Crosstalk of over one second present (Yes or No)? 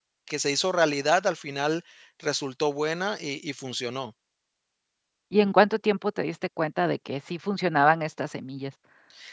No